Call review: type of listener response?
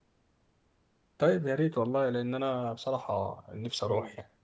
taking over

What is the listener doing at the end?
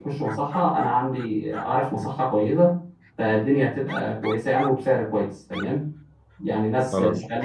listening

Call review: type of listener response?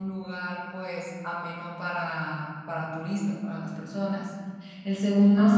listening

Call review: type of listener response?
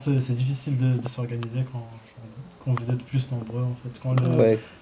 listening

